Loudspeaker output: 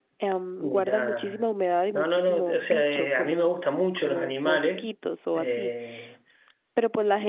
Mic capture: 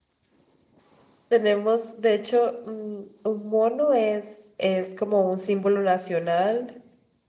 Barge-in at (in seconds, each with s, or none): 1.3 s